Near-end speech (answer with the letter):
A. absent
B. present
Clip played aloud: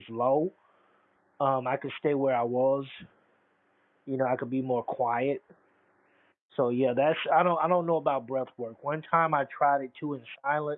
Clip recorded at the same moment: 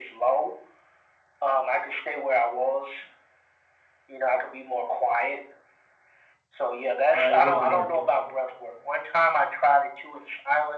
B